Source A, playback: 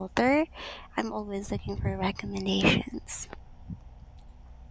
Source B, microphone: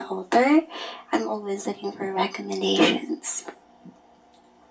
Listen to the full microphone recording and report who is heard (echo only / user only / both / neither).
echo only